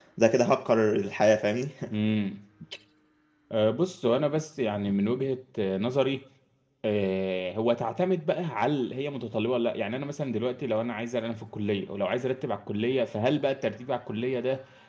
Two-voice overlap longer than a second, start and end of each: none

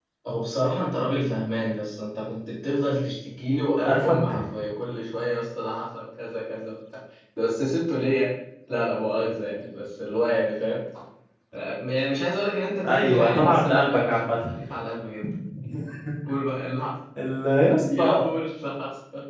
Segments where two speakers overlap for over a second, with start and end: 12.9-14.4

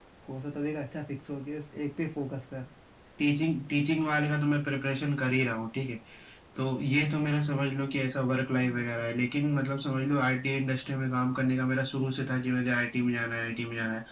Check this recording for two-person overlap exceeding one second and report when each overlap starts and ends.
none

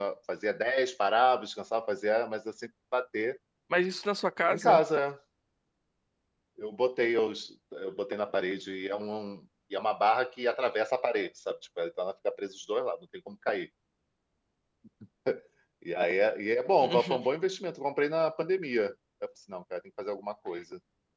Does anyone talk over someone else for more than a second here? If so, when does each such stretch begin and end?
none

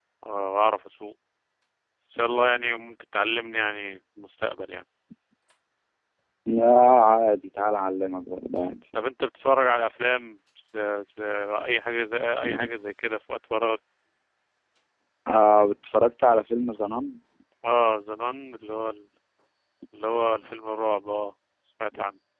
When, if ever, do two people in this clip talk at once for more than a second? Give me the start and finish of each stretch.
none

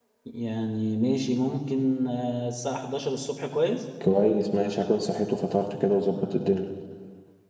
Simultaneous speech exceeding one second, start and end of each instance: none

